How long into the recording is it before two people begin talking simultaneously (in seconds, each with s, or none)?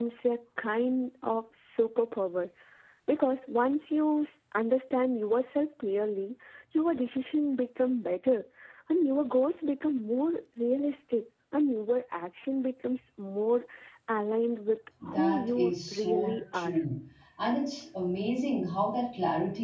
15.0 s